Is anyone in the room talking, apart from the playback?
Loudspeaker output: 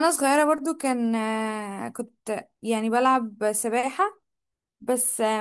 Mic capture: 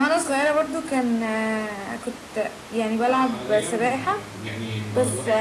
Yes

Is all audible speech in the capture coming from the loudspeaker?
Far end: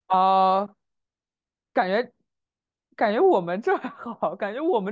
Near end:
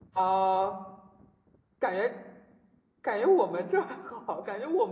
Yes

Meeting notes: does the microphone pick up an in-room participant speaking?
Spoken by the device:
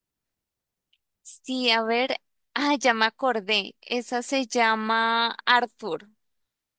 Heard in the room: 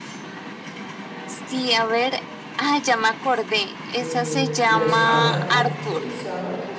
Yes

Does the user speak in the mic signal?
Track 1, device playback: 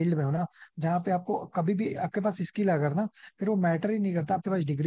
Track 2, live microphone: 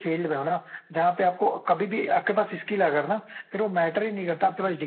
No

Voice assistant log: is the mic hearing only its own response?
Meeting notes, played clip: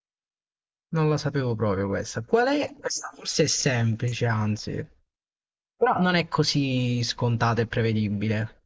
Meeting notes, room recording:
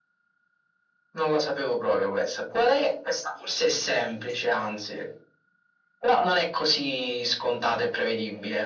Yes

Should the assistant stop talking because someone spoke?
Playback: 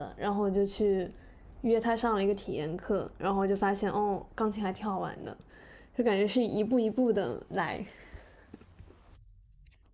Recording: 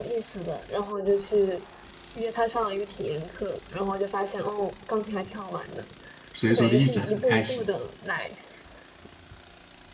Yes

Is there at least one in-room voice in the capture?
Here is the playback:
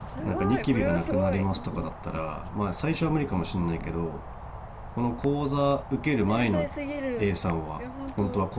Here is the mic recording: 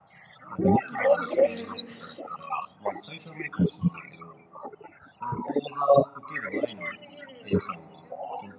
Yes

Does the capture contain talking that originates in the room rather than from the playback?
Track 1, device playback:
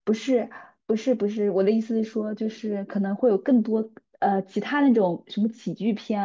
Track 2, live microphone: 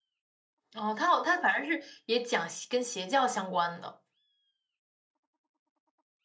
Yes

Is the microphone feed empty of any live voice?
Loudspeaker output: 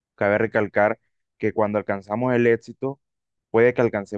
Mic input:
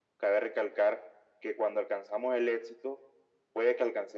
Yes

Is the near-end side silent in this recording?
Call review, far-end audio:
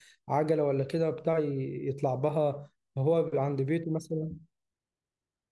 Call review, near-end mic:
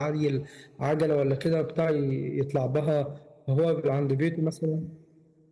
Yes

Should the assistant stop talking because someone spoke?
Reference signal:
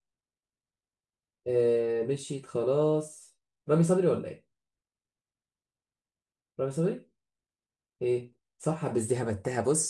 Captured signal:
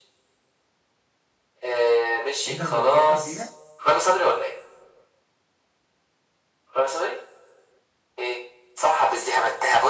Yes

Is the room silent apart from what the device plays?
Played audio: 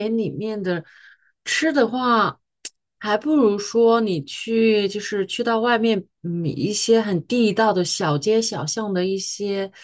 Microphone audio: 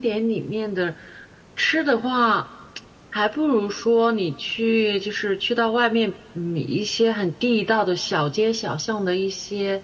Yes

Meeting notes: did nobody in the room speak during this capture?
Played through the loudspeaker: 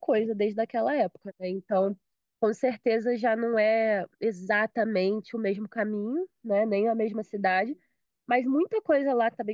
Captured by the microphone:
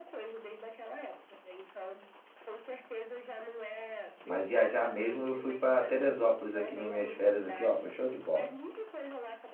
No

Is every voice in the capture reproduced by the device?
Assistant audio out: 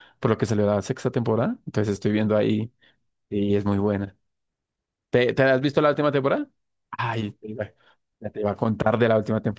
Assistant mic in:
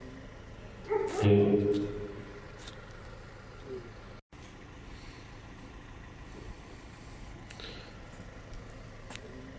No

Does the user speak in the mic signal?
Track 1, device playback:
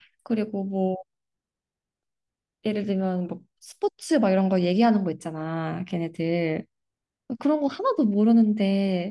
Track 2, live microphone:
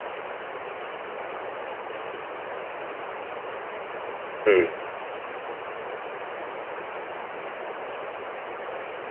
Yes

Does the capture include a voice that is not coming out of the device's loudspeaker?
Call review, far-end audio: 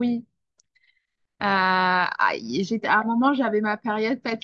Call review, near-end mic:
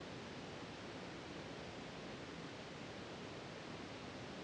No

